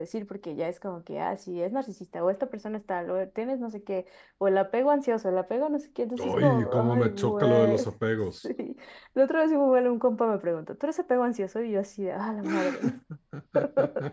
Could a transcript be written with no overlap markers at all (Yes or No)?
No